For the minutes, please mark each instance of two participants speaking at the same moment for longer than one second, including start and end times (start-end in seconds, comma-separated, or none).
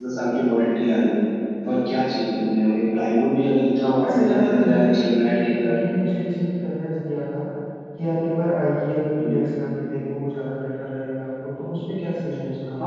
4.0-5.8